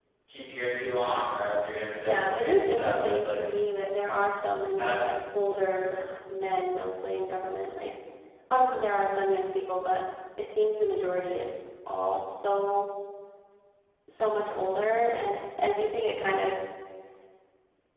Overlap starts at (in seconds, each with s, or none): 2.0 s